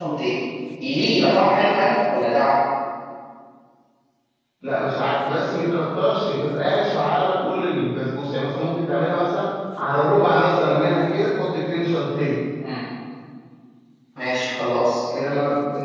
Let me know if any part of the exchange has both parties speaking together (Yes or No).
No